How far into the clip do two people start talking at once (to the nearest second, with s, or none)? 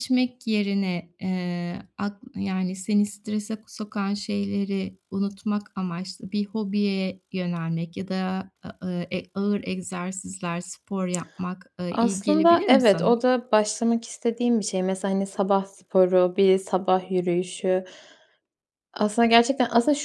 12 s